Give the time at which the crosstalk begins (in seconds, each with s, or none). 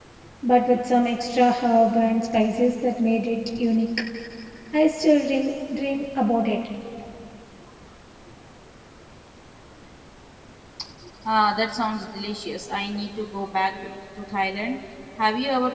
none